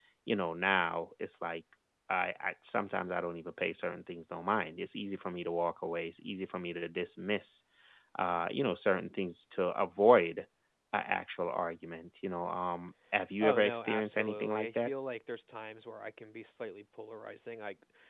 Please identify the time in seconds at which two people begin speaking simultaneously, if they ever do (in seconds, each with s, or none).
13.4 s